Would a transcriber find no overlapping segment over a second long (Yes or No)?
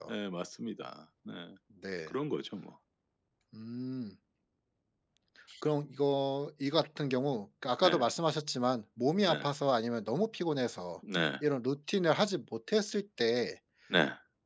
Yes